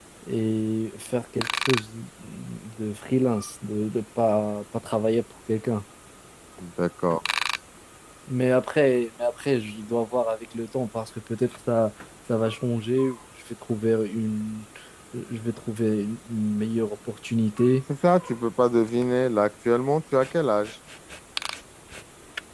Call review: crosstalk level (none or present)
none